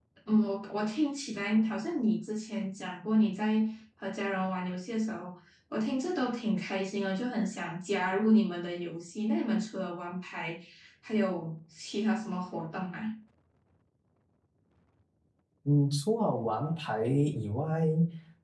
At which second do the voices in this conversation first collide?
none

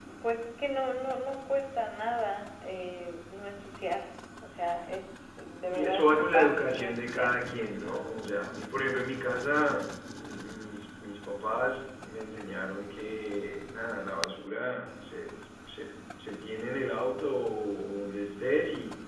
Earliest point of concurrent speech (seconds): 5.7 s

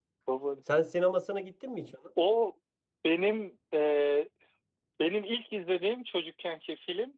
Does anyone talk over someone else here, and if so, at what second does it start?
none

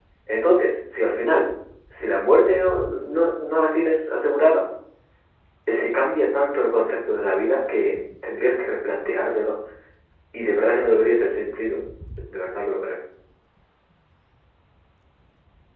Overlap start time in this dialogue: none

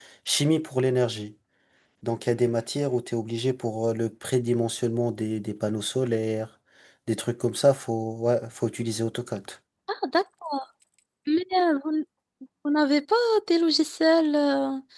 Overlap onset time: none

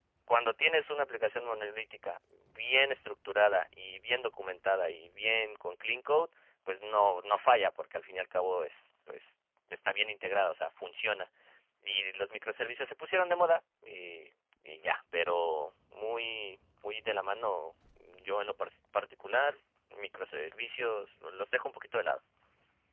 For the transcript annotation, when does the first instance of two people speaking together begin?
none

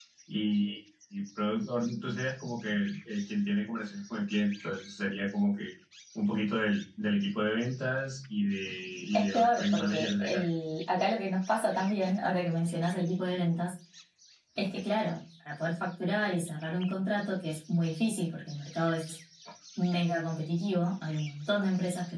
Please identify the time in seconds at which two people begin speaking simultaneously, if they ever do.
9.1 s

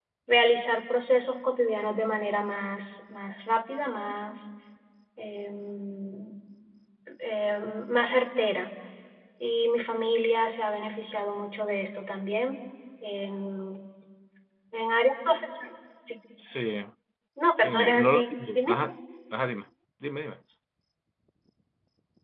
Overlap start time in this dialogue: 17.6 s

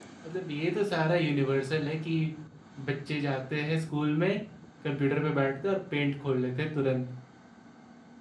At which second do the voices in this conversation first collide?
none

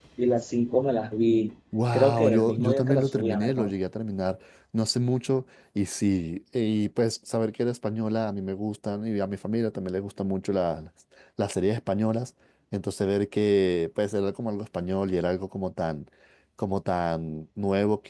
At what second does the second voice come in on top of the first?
1.7 s

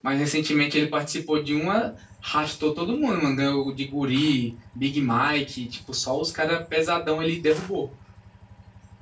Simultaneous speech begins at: none

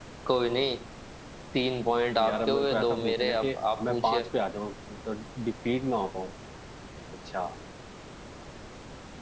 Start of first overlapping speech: 2.2 s

